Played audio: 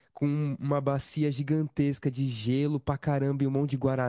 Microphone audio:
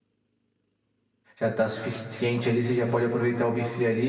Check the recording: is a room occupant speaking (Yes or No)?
Yes